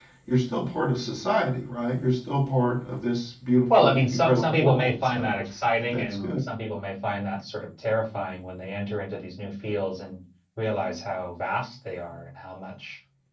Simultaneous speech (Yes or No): Yes